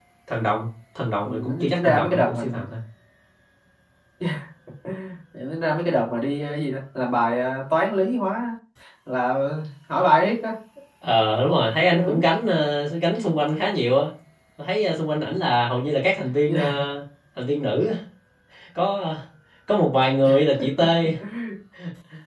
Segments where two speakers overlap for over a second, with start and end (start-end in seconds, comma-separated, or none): 1.2-2.6